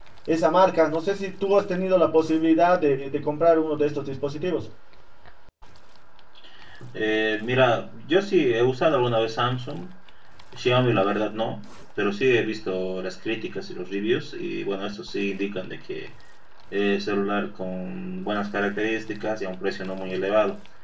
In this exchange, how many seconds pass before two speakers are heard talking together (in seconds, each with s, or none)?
none